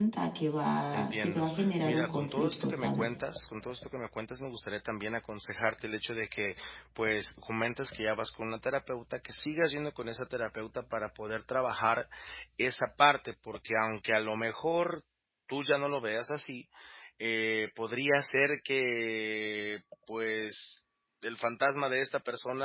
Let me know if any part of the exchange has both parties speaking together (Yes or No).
Yes